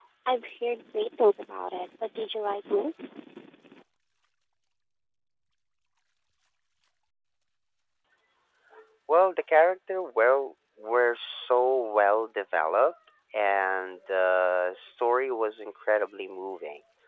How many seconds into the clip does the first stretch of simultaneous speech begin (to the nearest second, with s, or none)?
none